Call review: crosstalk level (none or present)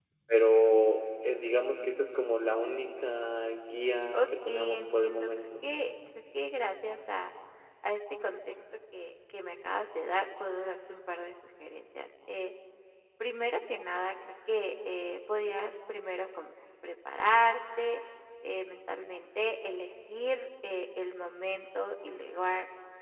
present